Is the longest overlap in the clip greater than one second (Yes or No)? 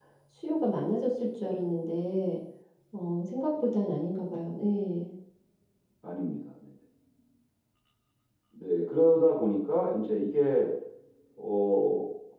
No